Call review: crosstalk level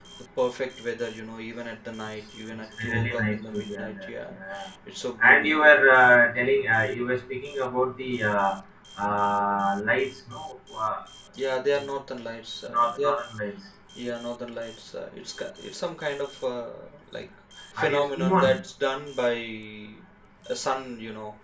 present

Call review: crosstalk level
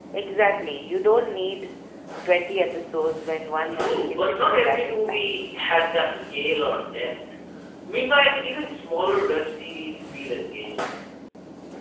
present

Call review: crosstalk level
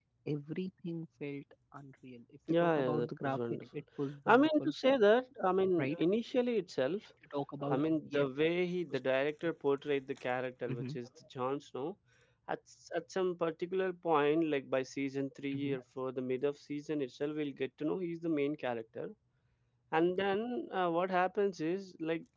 present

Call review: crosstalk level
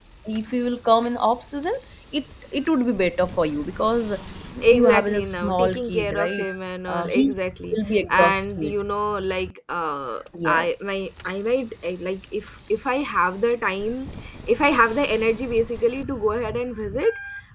present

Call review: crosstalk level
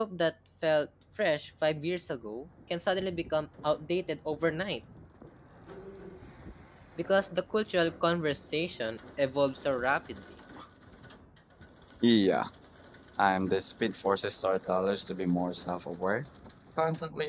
none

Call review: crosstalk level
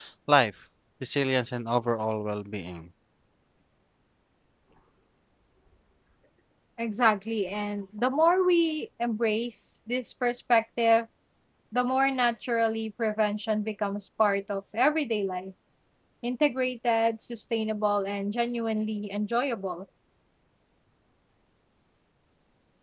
none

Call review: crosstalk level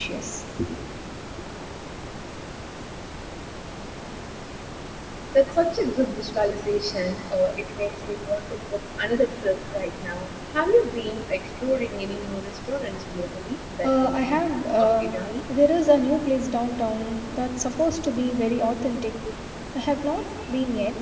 present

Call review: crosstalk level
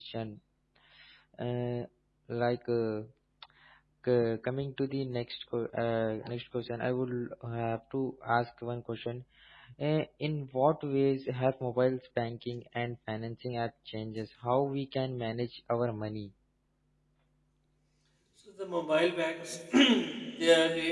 none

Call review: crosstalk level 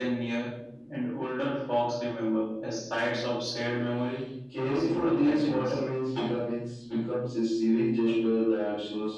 present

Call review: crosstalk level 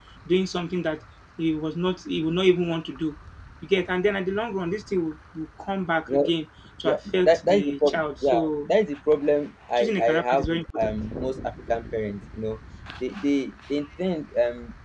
present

